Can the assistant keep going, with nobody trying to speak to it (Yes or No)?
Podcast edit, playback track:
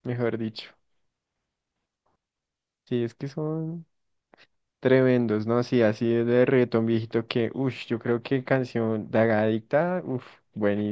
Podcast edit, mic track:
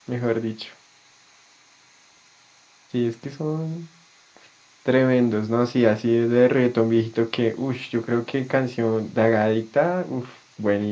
Yes